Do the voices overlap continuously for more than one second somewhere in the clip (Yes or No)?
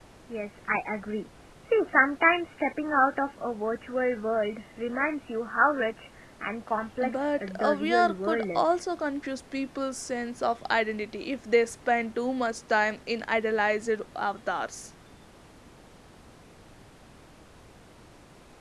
Yes